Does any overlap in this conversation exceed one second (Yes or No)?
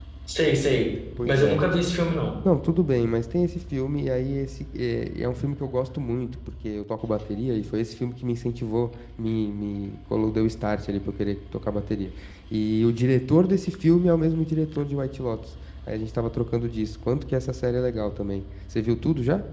No